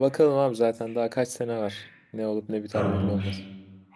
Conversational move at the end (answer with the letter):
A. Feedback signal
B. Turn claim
B